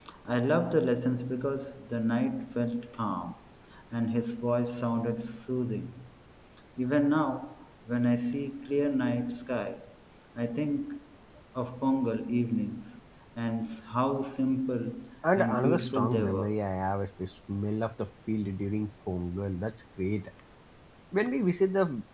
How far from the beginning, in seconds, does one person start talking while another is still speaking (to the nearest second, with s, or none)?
15 s